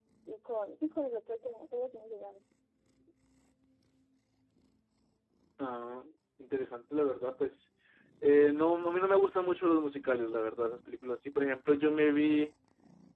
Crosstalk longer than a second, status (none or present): none